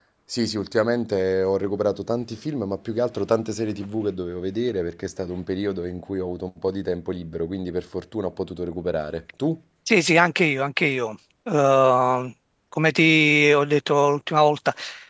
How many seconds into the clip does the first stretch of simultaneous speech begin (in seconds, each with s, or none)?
none